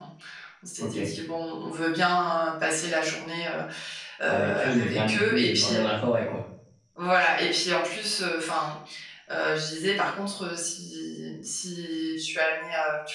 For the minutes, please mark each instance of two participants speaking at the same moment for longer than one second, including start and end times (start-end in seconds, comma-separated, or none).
4.3-5.8